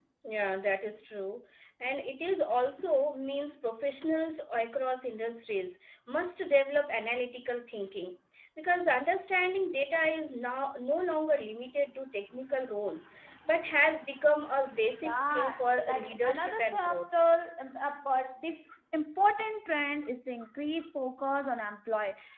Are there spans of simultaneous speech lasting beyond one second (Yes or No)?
Yes